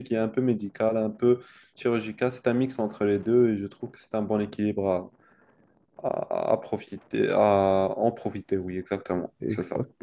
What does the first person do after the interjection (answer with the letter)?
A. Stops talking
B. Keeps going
A